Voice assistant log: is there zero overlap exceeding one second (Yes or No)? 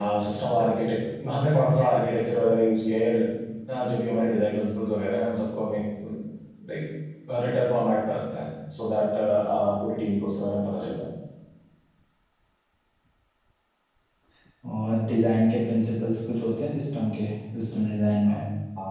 Yes